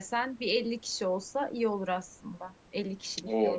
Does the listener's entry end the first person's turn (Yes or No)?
Yes